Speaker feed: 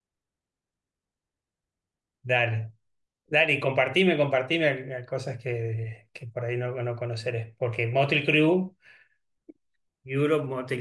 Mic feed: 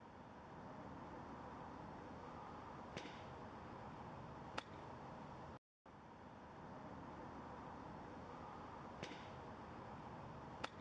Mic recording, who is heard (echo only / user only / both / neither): neither